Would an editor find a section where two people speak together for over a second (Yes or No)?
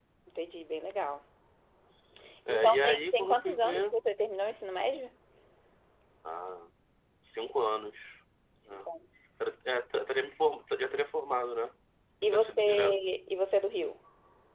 Yes